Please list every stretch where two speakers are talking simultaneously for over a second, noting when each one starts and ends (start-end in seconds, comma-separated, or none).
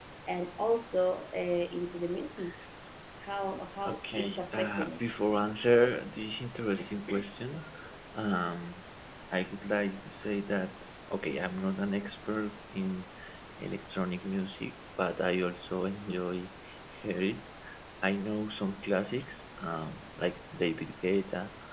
3.8-5.2